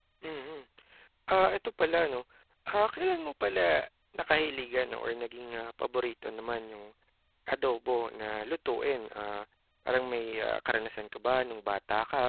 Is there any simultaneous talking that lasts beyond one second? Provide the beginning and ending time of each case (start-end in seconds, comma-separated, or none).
none